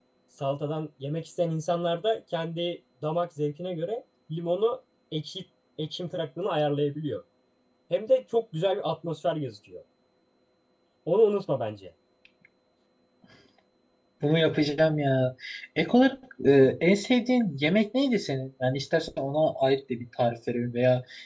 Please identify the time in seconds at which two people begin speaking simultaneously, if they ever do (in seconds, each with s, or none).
none